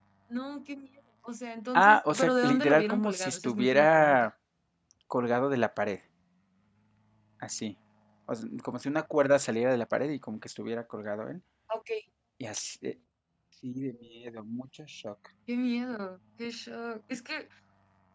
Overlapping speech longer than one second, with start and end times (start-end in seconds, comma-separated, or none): 1.7-4.3